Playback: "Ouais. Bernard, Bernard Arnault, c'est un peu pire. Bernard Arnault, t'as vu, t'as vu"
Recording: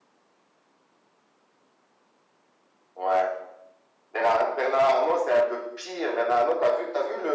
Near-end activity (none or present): none